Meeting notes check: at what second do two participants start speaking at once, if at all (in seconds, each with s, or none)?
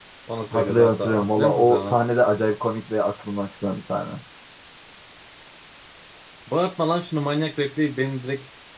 0.5 s